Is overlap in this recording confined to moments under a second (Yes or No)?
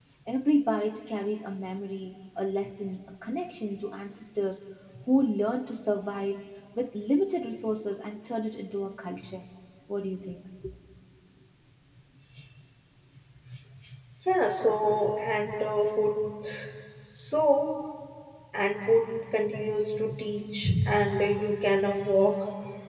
Yes